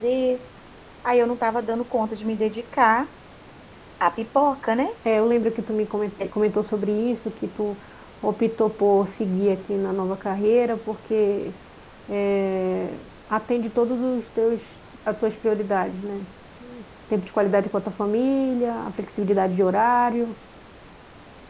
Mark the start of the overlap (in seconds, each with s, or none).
none